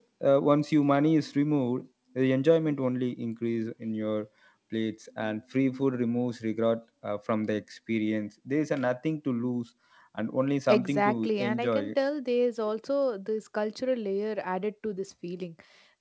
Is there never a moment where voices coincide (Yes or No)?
No